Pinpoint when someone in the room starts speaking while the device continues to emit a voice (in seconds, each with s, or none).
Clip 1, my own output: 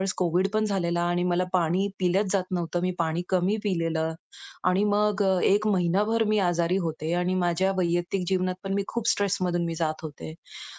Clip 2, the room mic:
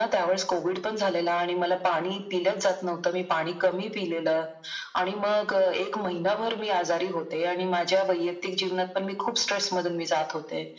none